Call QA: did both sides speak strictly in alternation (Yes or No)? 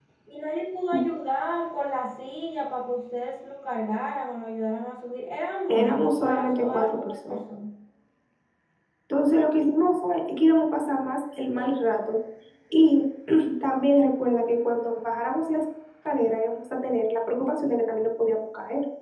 No